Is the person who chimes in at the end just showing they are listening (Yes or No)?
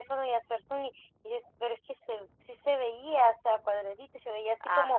Yes